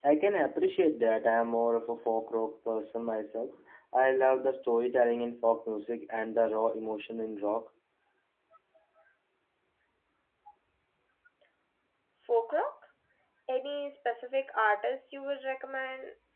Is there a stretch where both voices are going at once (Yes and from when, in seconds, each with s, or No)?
No